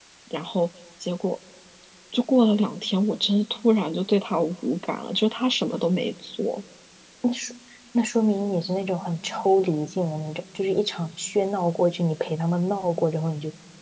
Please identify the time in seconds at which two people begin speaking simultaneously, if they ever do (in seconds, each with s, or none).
none